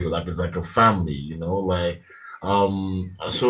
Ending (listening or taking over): listening